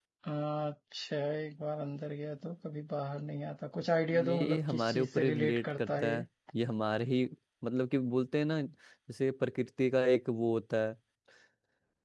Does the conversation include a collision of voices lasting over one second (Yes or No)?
Yes